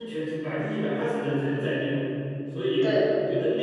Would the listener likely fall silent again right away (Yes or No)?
Yes